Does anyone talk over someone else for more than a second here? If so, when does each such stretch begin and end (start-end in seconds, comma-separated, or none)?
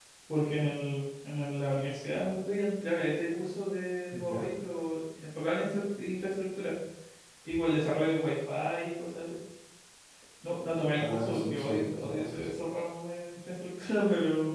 10.9-12.5